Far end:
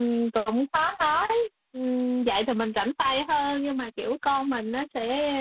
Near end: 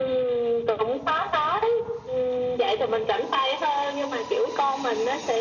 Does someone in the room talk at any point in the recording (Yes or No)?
No